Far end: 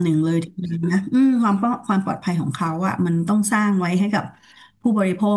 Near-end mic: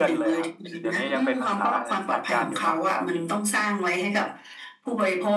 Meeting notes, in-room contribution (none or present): present